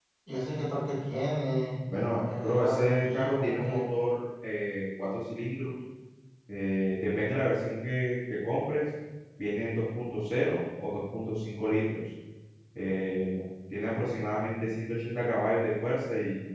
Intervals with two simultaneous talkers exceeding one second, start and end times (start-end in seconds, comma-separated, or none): 2.4-3.9